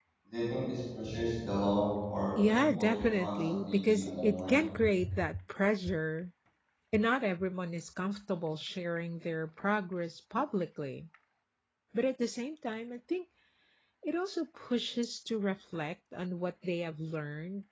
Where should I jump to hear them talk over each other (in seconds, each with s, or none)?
2.4 s